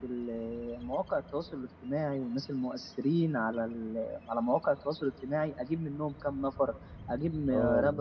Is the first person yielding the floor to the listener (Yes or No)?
No